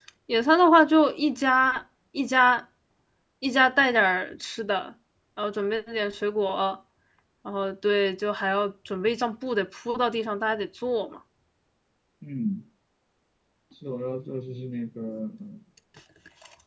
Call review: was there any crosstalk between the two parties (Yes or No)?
No